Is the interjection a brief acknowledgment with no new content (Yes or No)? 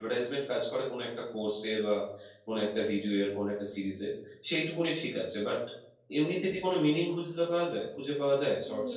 No